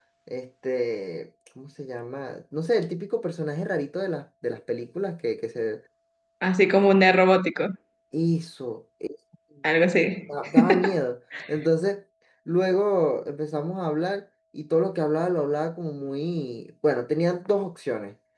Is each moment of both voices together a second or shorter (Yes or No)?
Yes